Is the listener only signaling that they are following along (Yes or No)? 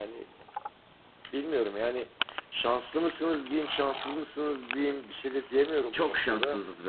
No